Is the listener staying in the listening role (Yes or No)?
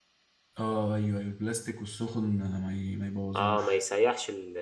No